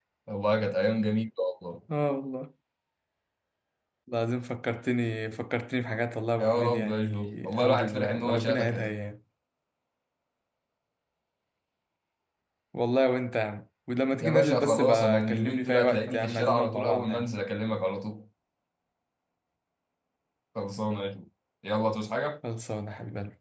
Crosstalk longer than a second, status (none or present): present